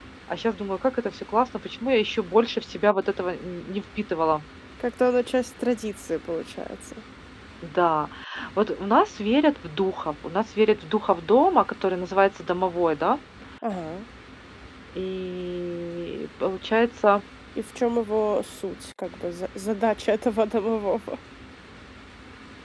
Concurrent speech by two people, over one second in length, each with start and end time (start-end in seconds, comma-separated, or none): none